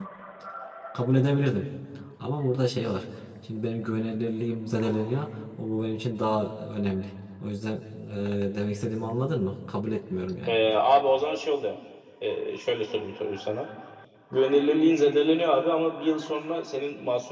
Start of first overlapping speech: none

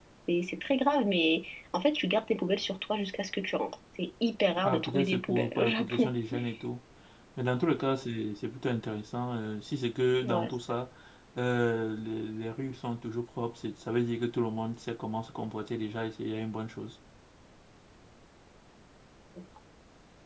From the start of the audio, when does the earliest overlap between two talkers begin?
4.6 s

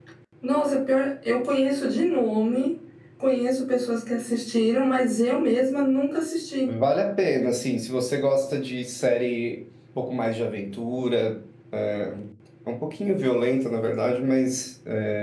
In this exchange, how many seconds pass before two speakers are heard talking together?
none

